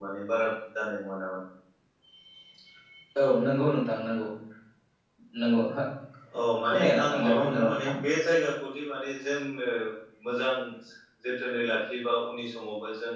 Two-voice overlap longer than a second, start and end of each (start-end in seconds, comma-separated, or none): 6.7-7.9